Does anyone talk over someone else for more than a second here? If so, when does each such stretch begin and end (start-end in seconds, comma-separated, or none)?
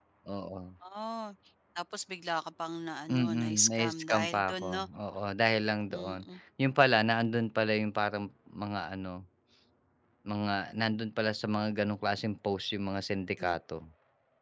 3.1-4.8